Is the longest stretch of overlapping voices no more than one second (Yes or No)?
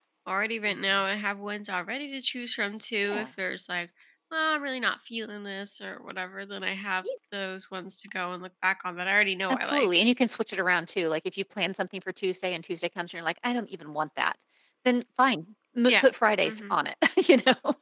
Yes